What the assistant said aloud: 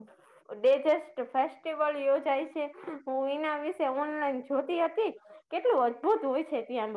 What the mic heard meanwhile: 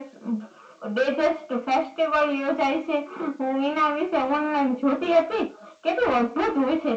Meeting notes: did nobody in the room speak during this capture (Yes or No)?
Yes